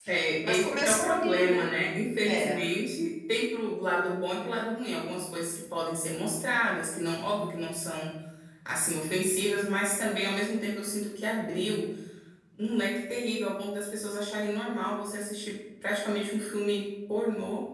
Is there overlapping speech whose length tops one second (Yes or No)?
Yes